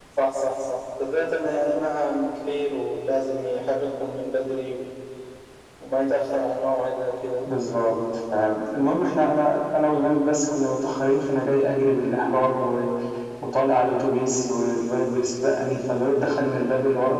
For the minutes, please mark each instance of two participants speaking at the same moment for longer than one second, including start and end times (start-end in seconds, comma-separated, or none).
none